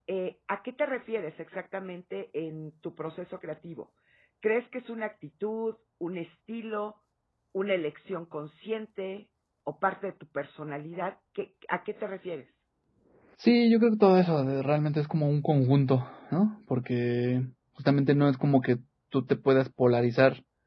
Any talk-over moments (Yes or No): No